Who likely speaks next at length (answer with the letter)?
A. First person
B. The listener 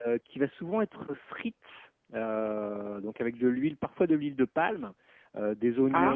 A